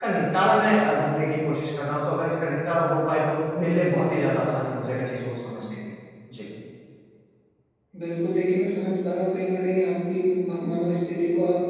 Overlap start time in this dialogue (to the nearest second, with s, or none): none